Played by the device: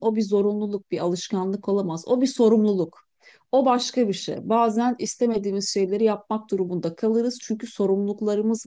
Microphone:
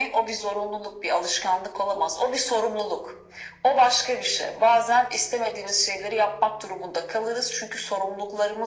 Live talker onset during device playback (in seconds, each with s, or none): none